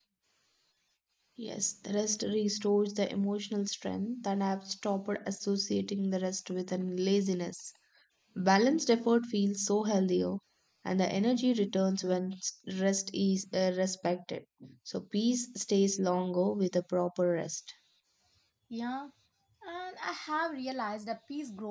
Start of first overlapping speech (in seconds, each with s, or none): none